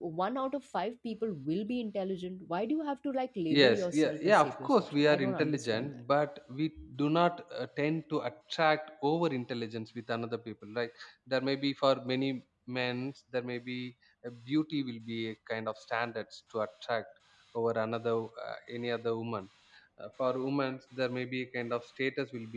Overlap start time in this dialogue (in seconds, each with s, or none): 3.5 s